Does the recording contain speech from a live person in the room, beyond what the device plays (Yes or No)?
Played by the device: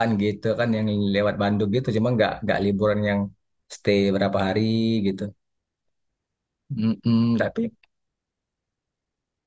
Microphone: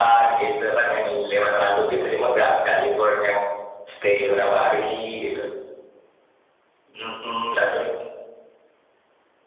No